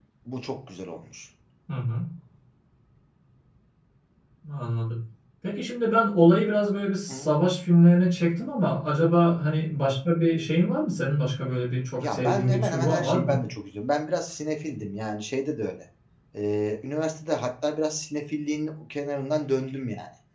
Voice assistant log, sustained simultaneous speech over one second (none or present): present